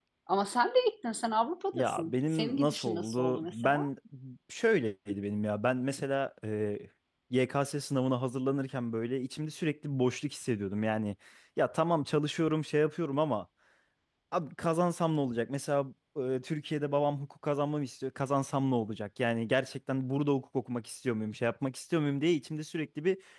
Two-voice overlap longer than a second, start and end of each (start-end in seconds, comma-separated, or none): 1.7-3.9